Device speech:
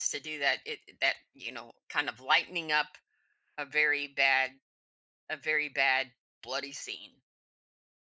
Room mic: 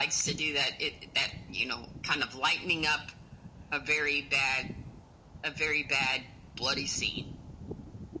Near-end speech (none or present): none